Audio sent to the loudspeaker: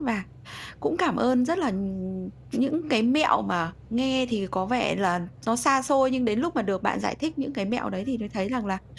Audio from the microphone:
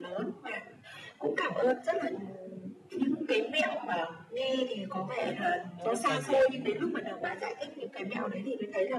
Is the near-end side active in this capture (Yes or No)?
Yes